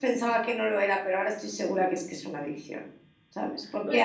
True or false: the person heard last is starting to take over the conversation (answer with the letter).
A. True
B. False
B